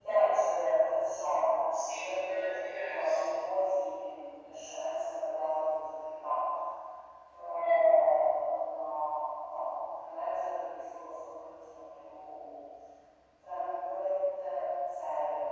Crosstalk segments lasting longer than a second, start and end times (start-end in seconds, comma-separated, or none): 1.9-3.2